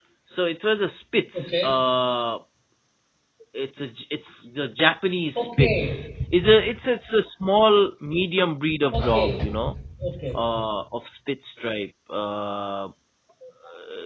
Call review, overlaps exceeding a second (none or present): none